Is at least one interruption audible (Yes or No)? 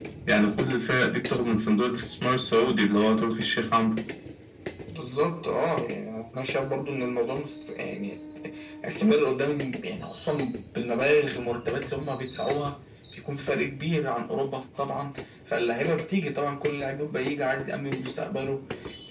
No